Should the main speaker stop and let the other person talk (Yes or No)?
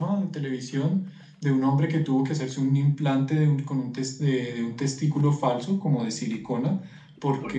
No